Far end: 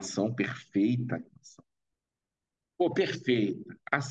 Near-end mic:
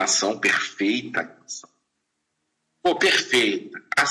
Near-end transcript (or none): none